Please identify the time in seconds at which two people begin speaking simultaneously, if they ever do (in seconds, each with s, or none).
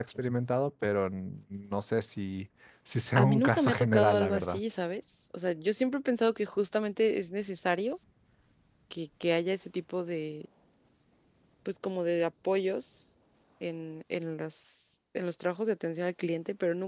3.2 s